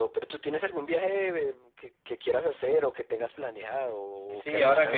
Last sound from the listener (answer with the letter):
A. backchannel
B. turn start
B